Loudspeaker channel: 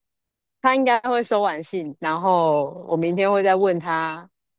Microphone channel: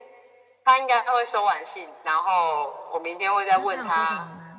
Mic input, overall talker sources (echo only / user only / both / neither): both